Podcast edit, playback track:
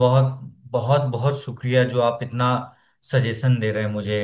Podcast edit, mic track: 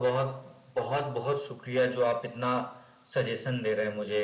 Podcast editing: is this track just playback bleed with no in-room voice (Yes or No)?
Yes